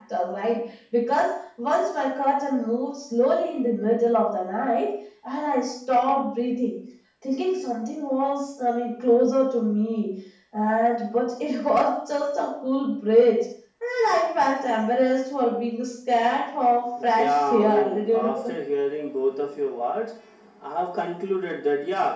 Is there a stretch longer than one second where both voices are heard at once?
Yes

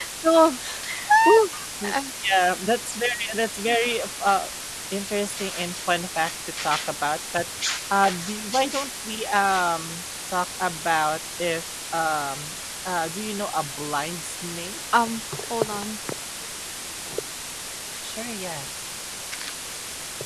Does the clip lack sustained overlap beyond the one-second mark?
Yes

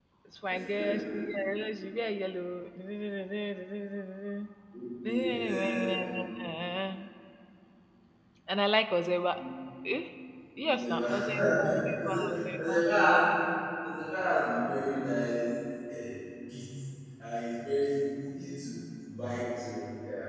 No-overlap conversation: No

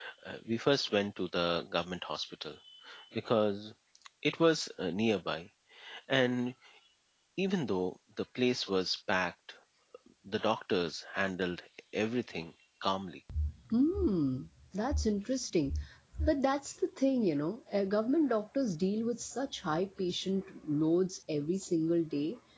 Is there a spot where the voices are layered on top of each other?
No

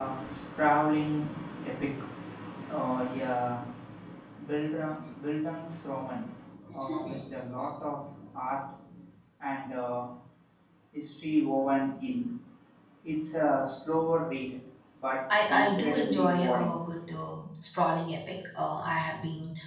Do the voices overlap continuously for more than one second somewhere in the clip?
Yes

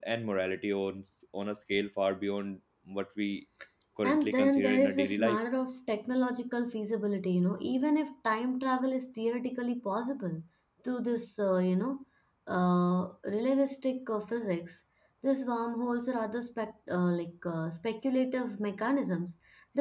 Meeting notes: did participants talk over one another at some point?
Yes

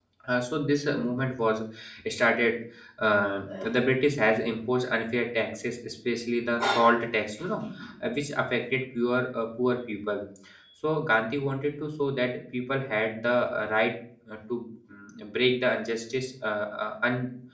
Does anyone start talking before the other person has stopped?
No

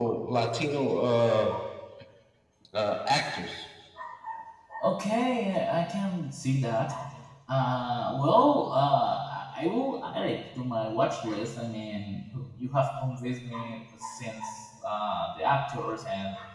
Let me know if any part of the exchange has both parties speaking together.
No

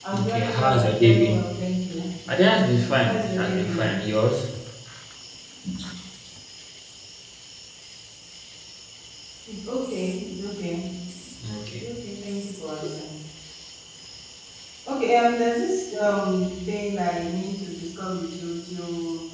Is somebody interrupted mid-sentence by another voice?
Yes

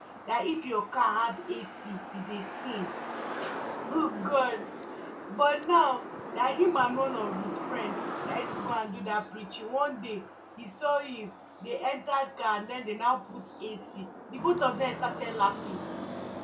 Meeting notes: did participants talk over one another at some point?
No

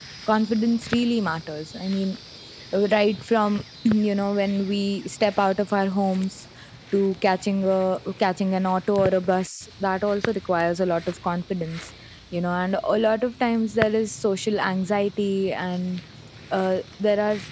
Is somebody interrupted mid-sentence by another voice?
No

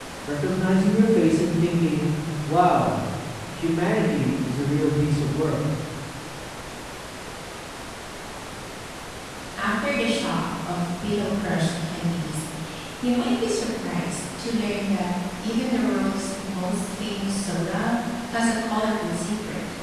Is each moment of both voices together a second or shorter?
Yes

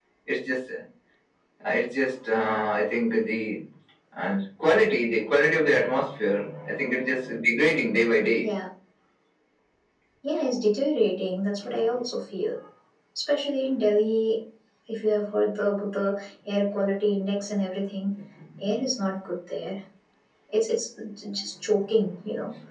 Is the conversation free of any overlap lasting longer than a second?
Yes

